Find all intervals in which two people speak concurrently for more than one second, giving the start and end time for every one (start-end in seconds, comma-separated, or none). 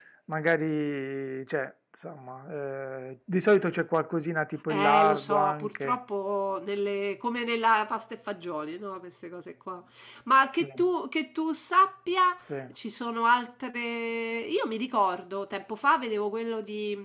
4.7-6.0